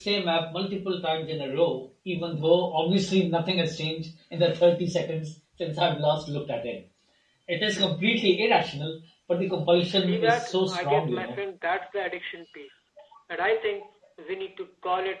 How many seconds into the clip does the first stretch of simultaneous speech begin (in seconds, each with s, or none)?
9.9 s